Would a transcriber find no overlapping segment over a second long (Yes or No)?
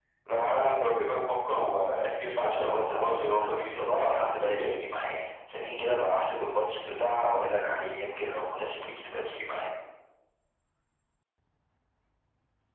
No